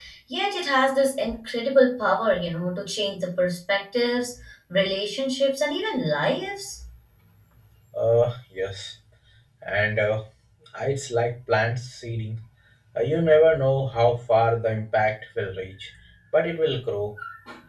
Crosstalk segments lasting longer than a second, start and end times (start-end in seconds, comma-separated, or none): none